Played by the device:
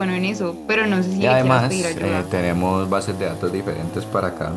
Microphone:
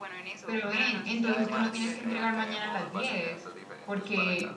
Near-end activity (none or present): present